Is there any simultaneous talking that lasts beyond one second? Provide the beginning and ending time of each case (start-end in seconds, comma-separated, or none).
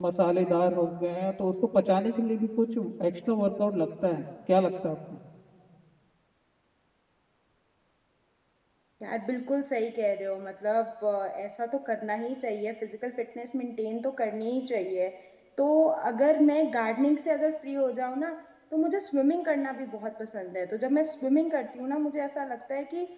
none